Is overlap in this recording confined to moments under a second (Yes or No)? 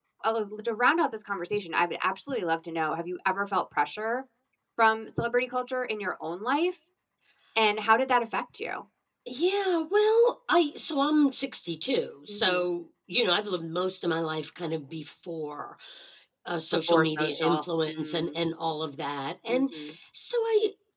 No